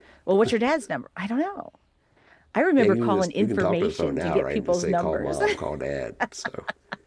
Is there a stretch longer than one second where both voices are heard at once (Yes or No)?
Yes